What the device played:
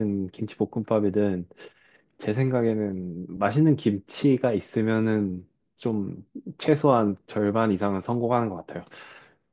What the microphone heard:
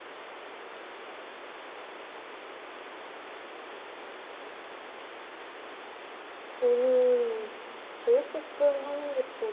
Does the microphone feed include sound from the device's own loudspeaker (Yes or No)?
No